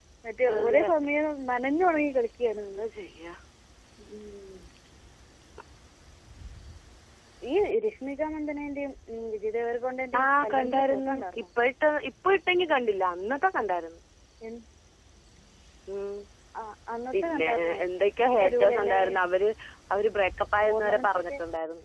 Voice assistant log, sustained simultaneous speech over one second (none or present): present